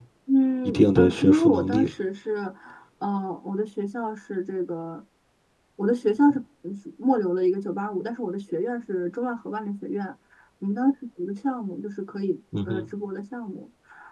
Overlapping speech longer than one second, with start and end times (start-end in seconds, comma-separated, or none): 0.6-1.9